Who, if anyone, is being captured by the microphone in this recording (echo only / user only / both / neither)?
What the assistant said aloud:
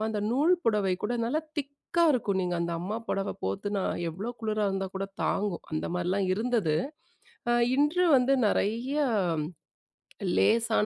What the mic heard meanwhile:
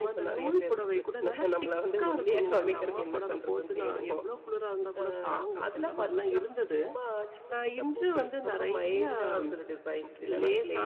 both